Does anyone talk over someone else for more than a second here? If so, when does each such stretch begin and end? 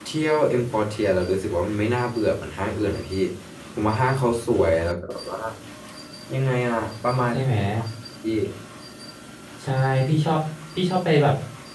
none

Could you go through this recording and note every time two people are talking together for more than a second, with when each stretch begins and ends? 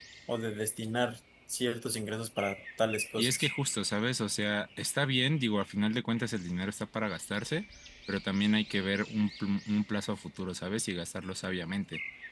none

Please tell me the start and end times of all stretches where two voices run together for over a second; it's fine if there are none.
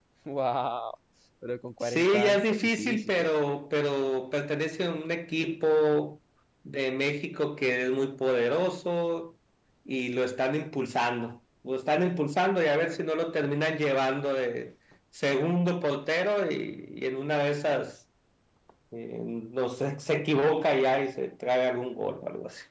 1.8-3.3

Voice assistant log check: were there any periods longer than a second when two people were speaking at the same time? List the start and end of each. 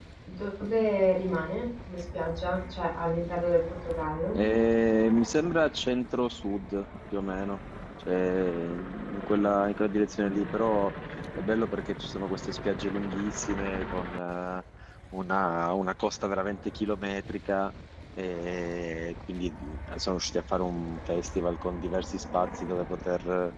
none

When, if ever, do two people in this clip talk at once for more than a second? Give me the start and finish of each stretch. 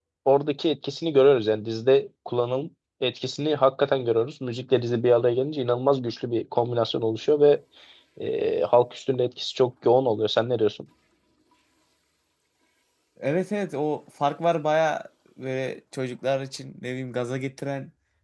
none

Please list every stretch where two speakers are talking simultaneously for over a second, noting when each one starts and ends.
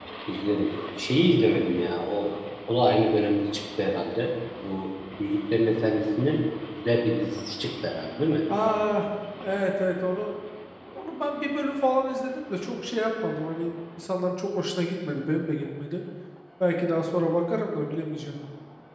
none

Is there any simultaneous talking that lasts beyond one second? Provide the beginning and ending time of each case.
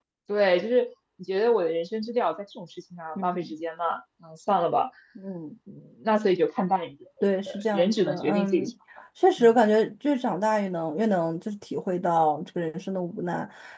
7.5-8.7

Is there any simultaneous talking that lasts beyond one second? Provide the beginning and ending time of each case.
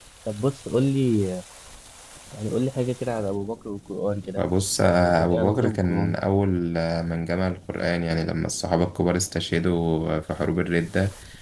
4.9-6.1

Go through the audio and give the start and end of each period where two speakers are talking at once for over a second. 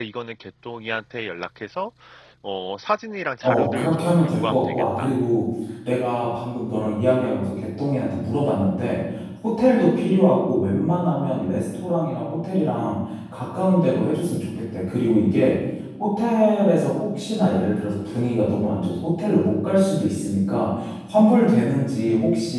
3.4-5.1

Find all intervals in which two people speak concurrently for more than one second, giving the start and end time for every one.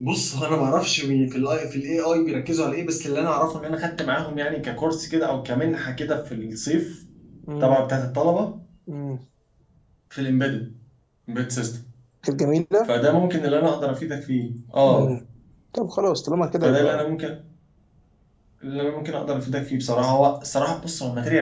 none

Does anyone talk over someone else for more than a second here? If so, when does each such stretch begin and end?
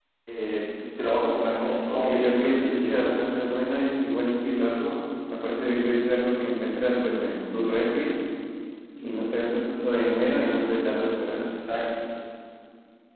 1.8-3.1

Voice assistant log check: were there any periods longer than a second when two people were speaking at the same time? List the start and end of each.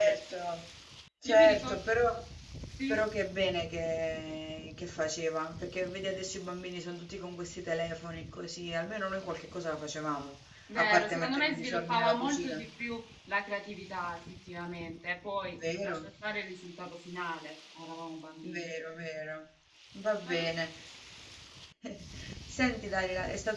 10.8-12.6

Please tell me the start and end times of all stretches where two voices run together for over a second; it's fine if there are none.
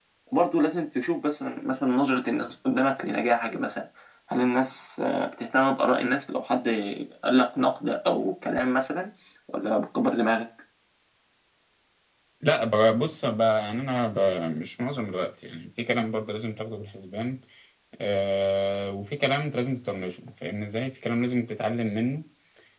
none

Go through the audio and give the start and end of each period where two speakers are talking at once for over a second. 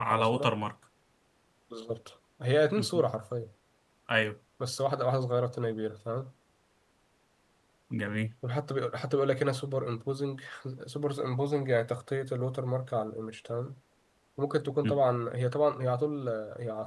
none

